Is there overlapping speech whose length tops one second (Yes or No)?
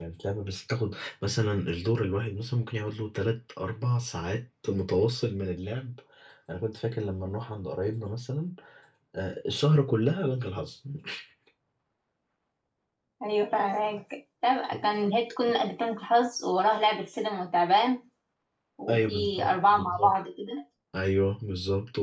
Yes